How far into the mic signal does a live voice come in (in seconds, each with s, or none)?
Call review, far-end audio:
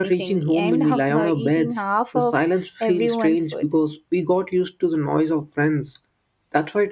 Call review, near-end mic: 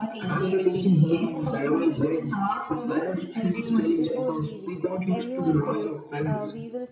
4.0 s